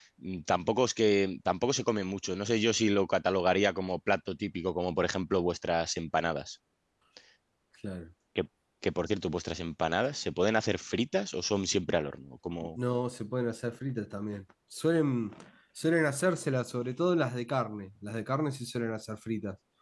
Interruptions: none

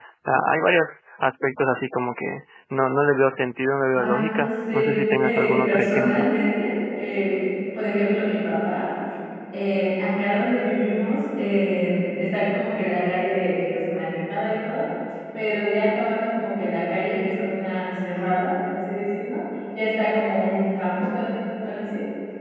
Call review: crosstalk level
present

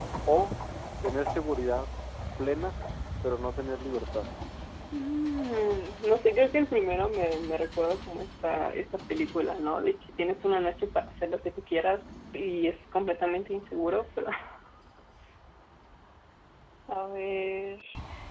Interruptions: none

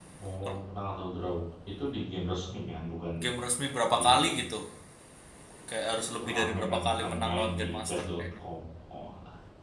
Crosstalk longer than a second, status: present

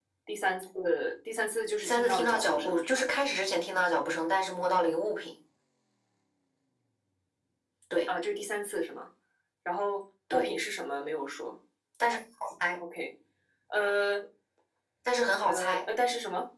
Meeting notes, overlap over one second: present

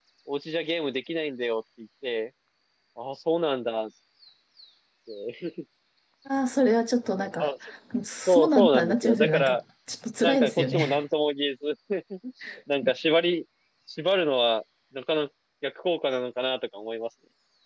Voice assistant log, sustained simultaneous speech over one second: present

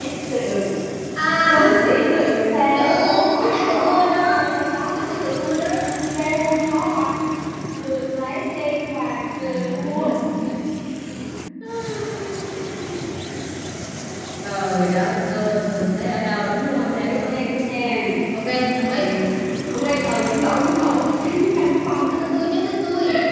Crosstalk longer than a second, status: present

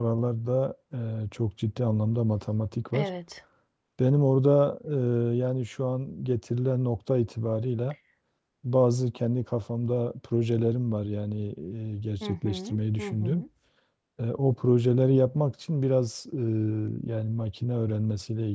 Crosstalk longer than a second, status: present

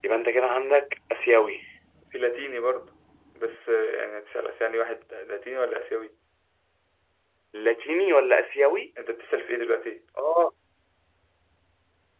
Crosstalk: none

